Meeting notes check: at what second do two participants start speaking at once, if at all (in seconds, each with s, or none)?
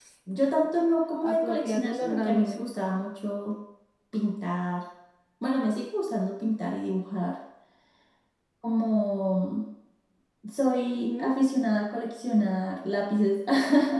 1.2 s